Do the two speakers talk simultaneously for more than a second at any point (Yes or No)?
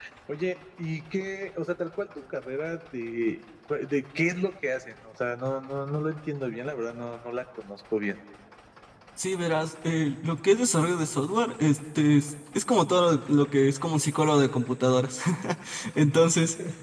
No